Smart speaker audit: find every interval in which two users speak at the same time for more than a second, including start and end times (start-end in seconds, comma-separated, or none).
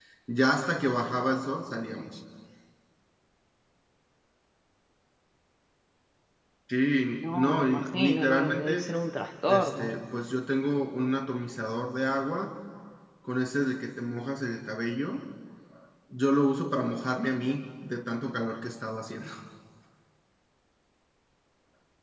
7.2-8.9